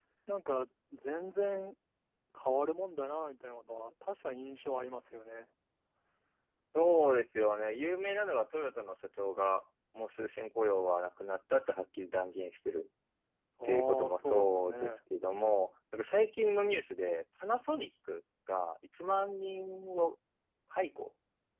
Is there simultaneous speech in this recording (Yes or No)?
Yes